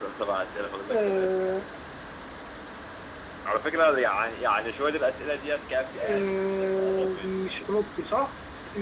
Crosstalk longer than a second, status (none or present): present